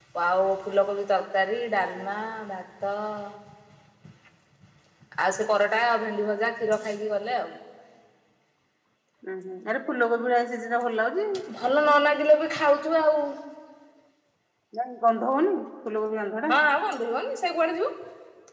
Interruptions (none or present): none